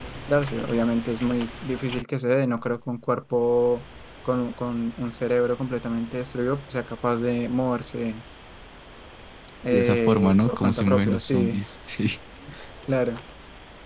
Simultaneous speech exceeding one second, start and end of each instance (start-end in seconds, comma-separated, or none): 9.7-11.6